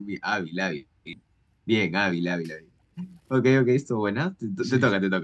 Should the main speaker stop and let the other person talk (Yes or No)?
Yes